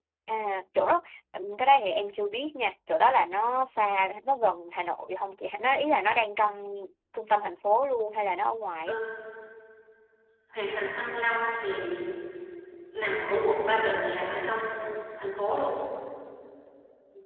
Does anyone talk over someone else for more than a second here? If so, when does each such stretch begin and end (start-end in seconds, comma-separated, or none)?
none